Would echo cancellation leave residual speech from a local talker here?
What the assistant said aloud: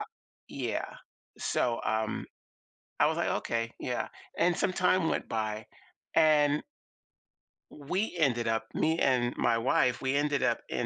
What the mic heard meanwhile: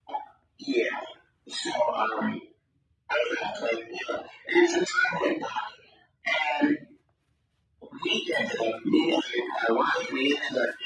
No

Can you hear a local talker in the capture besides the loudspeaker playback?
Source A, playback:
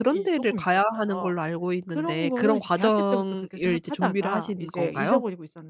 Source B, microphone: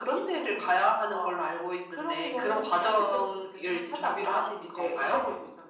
No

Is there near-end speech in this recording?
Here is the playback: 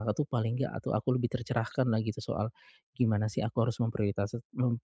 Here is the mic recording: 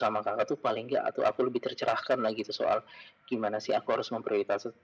No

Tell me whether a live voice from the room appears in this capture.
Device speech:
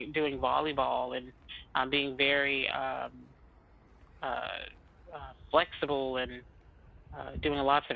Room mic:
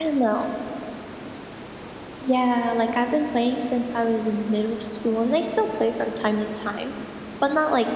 Yes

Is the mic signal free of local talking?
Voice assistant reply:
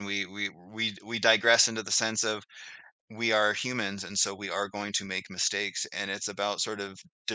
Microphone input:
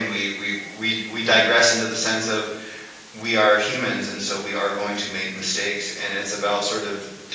Yes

